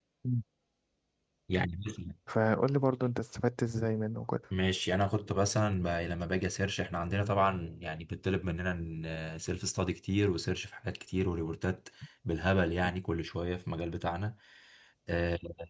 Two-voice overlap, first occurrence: none

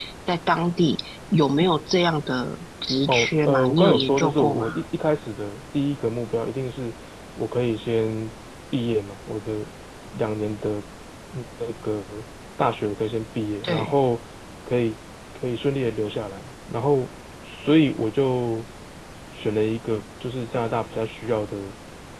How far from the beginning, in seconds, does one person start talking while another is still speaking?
3.1 s

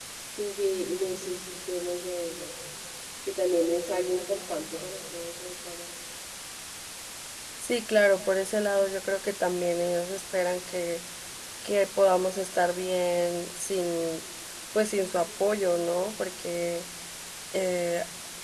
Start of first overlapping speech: none

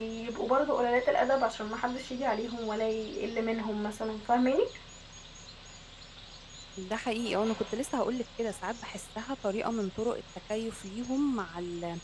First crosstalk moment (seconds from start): none

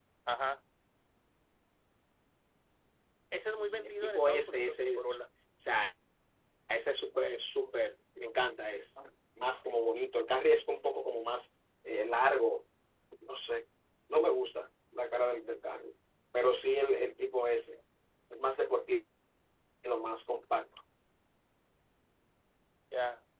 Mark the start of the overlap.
3.4 s

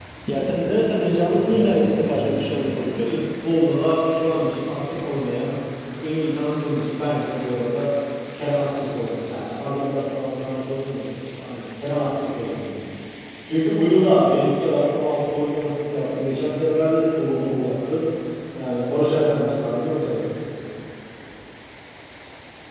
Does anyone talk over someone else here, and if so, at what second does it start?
1.3 s

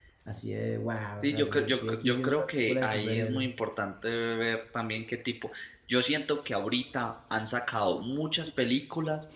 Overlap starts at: 1.2 s

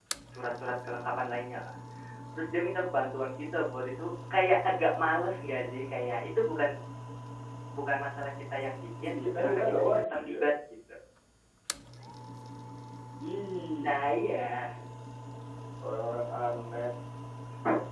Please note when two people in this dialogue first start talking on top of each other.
9.0 s

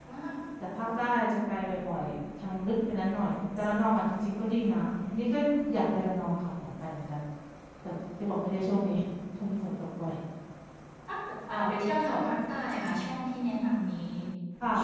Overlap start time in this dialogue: none

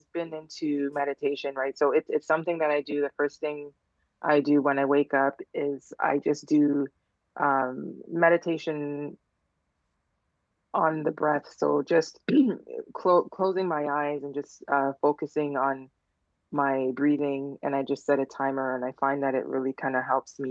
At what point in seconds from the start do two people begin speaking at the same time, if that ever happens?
none

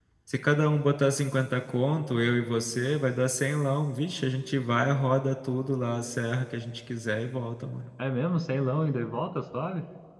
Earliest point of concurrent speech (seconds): none

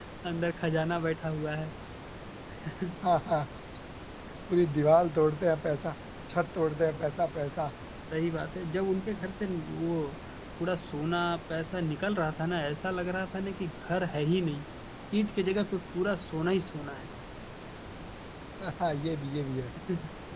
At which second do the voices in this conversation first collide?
none

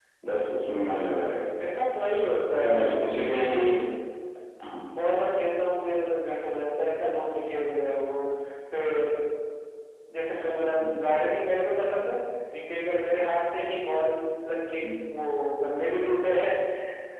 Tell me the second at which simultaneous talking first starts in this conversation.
2.5 s

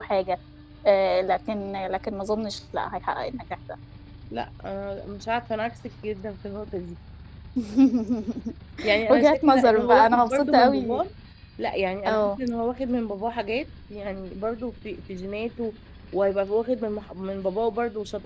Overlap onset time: 9.1 s

